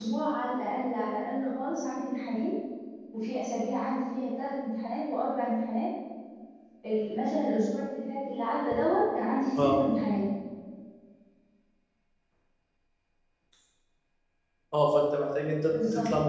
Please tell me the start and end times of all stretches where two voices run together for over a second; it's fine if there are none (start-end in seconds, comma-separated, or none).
none